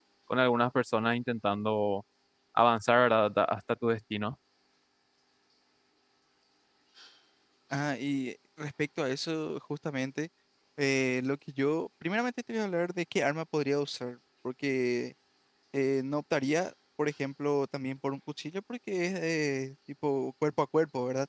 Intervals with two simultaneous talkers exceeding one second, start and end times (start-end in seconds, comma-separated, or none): none